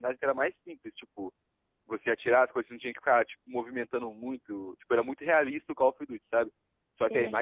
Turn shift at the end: No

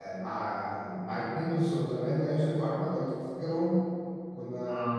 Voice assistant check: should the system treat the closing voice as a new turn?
No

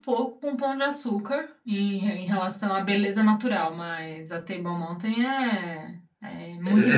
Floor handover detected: Yes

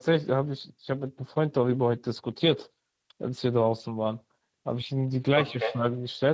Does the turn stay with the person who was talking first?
Yes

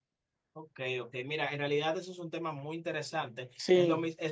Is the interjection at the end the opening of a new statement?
No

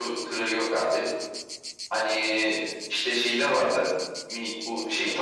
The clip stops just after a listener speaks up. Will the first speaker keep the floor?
Yes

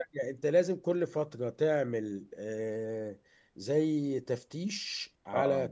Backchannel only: Yes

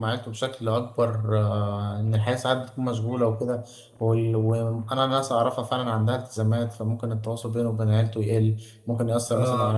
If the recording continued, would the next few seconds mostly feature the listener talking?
No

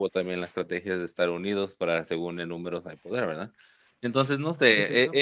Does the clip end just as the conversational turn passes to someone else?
No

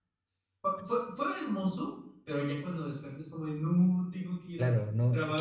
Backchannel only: No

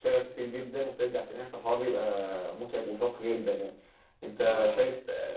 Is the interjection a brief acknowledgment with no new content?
Yes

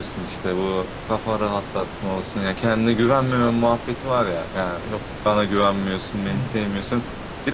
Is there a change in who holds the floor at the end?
No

